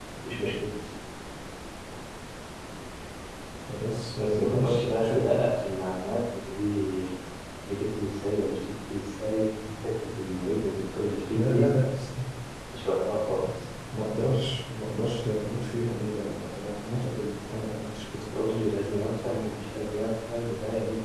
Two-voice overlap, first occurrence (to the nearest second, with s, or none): 4 s